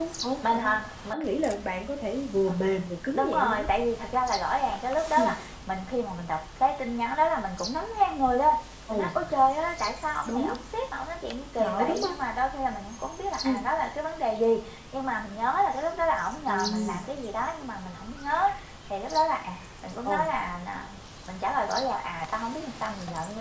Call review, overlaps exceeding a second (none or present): none